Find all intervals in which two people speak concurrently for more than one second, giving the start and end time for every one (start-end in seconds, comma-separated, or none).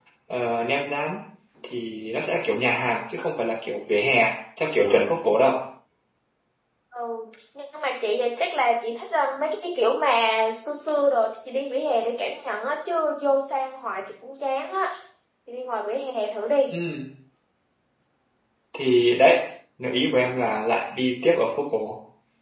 none